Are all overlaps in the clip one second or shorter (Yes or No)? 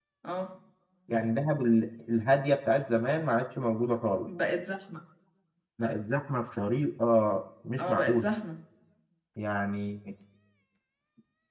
Yes